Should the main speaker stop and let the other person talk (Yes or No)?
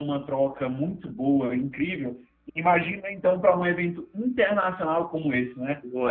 No